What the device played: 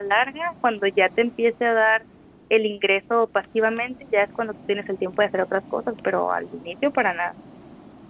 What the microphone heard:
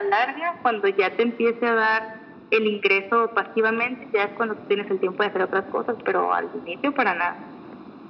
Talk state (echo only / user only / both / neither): echo only